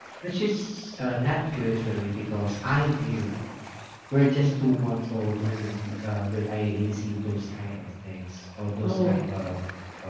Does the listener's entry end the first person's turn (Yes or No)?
No